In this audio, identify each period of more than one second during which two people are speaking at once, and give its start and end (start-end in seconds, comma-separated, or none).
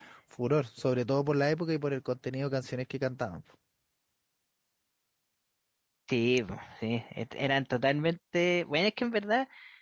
none